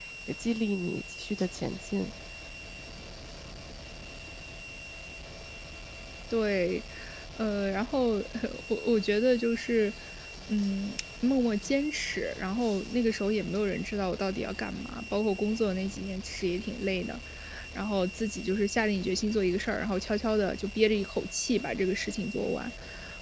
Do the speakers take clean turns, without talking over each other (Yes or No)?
Yes